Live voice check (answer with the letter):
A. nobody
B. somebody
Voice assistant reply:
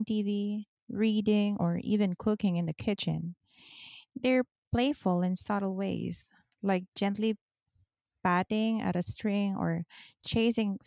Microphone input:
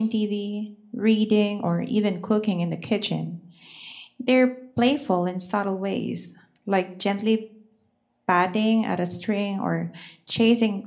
A